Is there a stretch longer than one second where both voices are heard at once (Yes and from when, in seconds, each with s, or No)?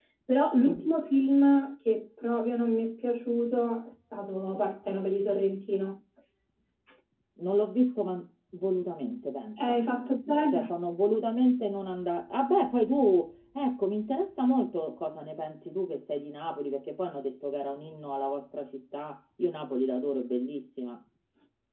No